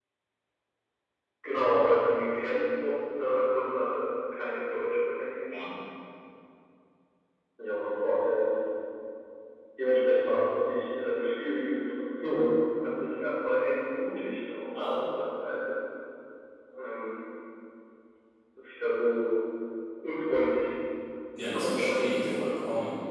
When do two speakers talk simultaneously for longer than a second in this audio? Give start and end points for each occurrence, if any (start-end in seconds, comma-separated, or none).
21.4-22.6